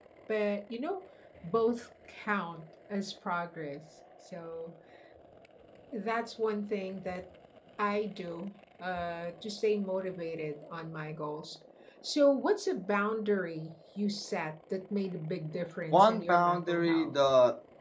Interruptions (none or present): present